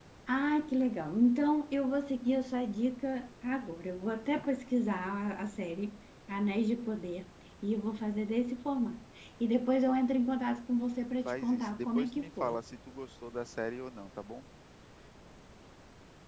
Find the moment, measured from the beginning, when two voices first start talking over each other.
11 s

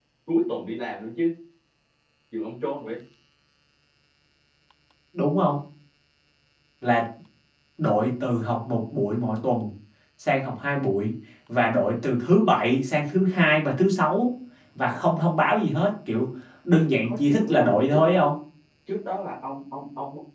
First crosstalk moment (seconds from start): 17 s

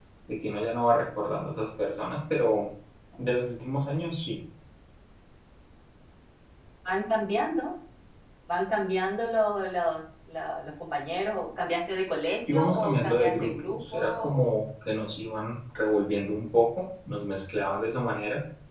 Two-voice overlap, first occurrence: 12 s

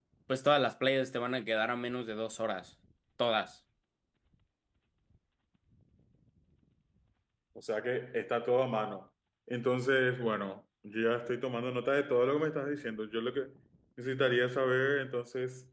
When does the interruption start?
none

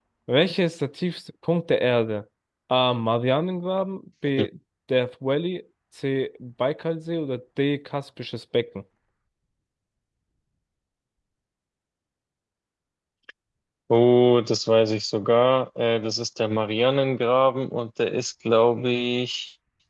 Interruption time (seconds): none

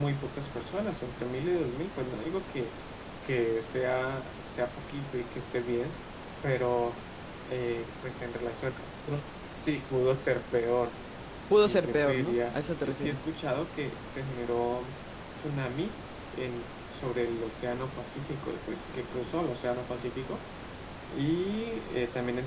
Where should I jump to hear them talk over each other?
12 s

